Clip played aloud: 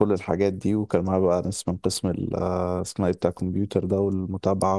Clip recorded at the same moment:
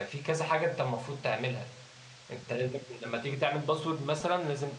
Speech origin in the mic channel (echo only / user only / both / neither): user only